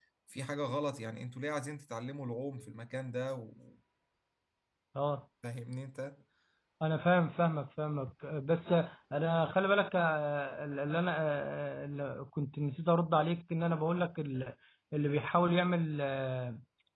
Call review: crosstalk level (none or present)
none